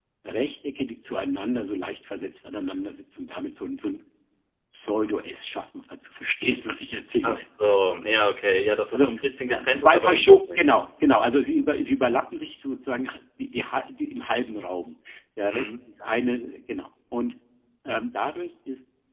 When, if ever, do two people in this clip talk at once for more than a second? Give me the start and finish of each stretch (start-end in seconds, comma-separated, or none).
9.5-10.8